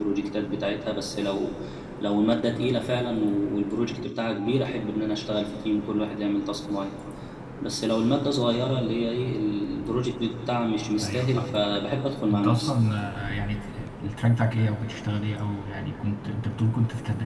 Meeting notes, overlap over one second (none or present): none